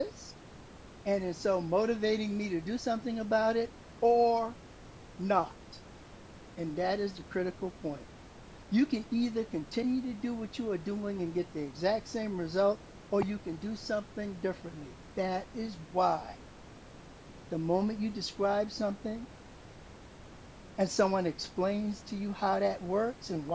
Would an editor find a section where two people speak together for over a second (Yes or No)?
No